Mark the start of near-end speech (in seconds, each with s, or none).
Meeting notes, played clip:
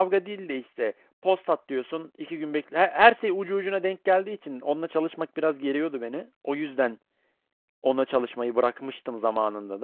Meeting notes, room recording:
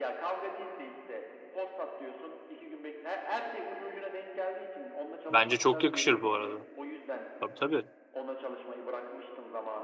5.3 s